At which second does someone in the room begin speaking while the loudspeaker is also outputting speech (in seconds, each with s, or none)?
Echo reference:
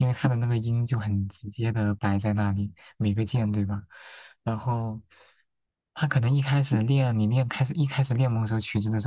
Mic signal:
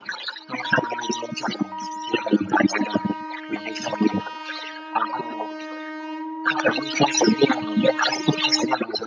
none